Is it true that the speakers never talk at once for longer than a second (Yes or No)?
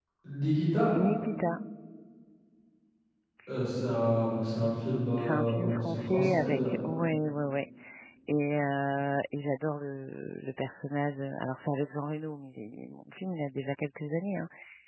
No